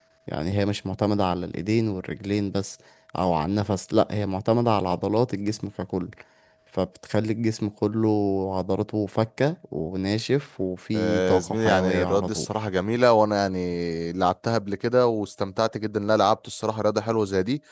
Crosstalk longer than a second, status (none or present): present